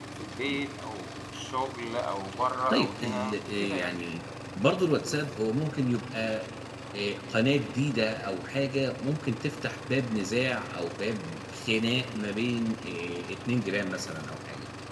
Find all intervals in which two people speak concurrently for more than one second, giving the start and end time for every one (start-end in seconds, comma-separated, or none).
2.7-3.9